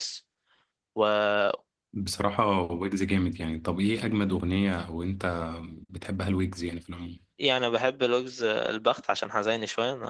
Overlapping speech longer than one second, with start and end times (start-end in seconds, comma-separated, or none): none